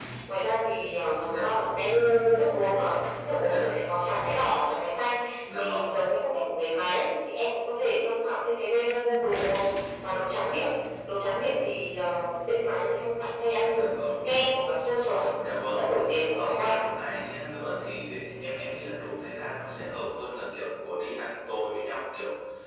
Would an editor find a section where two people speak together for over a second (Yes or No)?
No